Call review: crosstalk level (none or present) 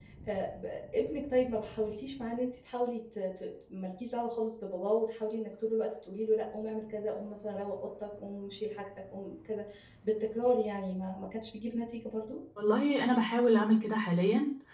none